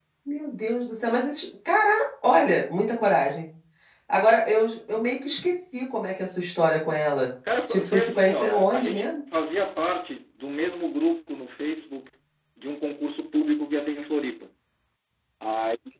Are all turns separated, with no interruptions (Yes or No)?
No